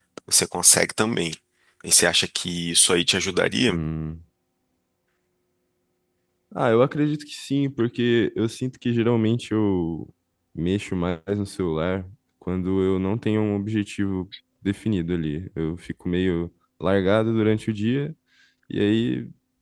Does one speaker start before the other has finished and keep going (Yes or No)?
No